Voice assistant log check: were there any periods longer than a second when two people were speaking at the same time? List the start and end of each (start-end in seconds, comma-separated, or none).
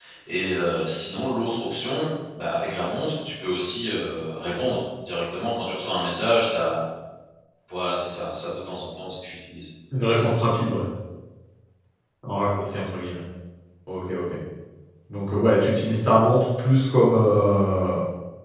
none